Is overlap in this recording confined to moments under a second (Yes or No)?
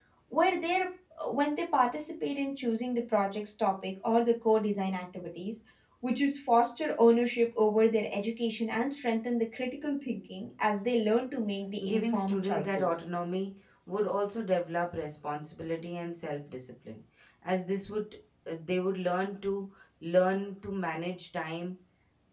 No